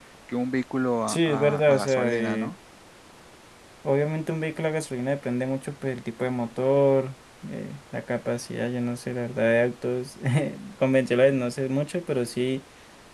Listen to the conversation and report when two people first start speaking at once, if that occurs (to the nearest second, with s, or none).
1 s